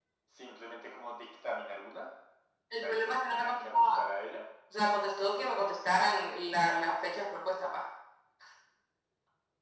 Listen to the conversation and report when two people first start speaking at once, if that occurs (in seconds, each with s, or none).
2.8 s